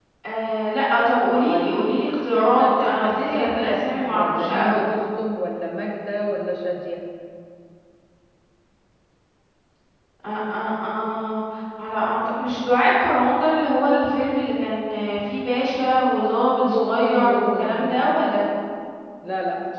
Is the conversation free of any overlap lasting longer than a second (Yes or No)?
No